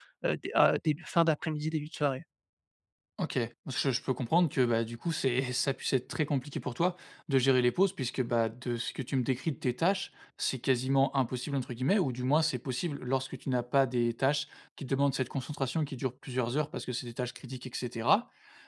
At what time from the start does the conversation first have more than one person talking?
none

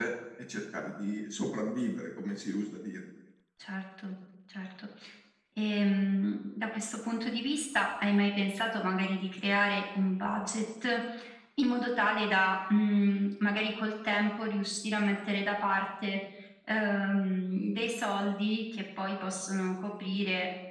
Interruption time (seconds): none

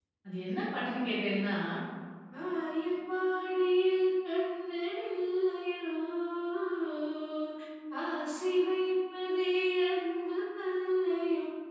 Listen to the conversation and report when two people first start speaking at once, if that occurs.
none

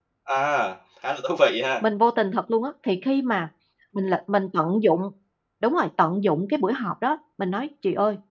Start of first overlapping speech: none

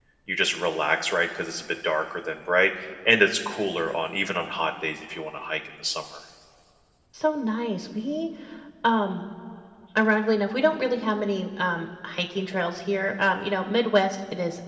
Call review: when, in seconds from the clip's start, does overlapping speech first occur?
none

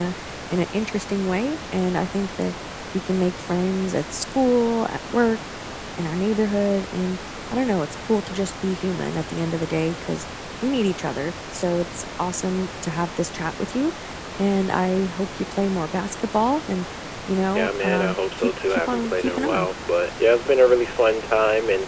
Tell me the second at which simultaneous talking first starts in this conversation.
17.6 s

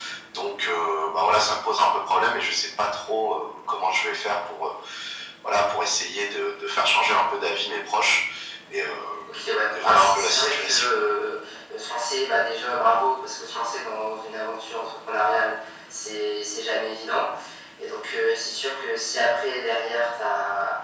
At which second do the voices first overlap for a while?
9.3 s

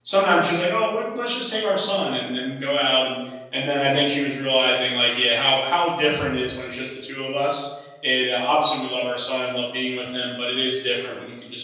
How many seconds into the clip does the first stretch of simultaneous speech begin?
none

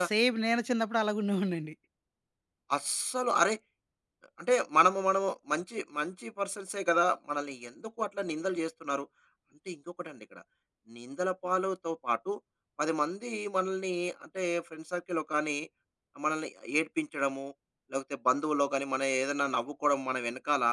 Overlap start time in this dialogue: none

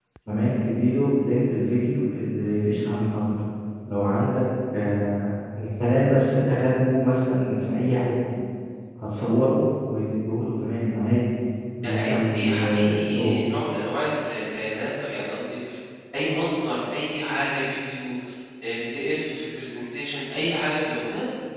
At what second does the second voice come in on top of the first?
11.8 s

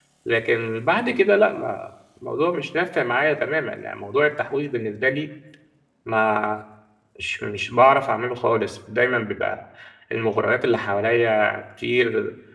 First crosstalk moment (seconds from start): none

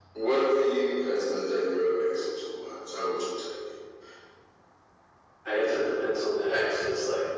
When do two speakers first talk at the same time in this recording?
none

